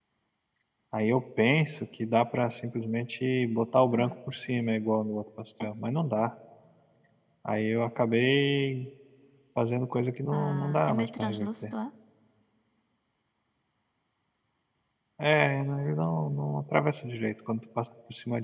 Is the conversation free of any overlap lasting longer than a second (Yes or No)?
No